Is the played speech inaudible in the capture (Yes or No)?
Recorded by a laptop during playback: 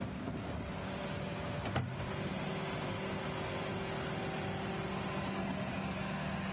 Yes